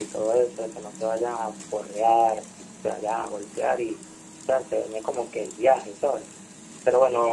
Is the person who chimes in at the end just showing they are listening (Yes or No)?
Yes